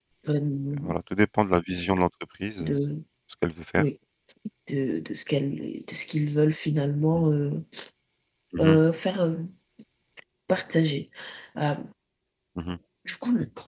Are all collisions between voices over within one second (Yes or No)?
Yes